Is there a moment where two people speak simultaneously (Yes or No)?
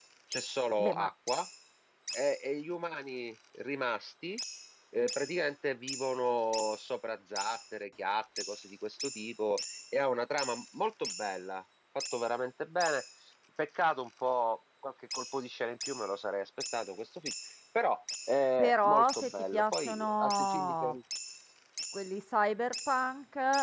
Yes